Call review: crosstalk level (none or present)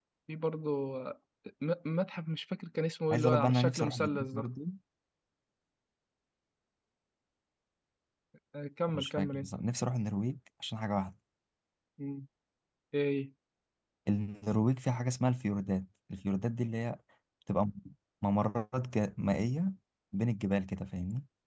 present